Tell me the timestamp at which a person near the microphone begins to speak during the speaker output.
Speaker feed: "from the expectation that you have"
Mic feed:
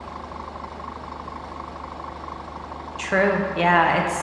3.0 s

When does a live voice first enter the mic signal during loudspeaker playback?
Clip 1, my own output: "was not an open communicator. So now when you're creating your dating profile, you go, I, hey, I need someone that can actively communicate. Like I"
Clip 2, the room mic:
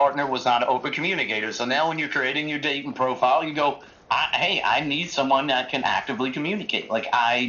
none

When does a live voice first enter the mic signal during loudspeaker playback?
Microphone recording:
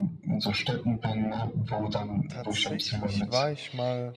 2.3 s

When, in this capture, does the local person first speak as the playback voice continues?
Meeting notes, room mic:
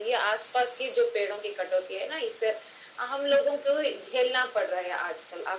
none

